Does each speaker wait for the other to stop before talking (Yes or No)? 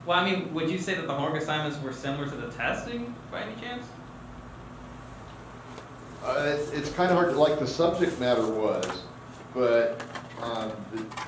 Yes